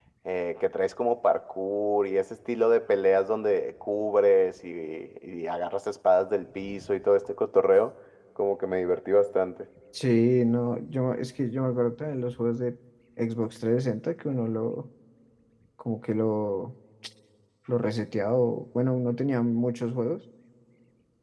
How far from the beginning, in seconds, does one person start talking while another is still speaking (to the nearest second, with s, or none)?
none